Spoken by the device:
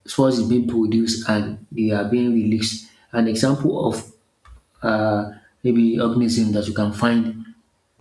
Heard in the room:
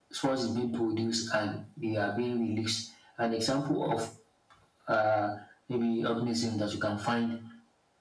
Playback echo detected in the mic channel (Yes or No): Yes